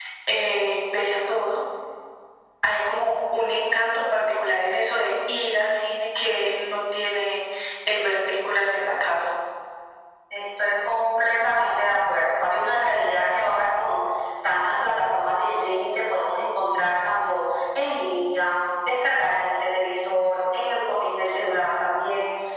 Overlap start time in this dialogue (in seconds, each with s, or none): none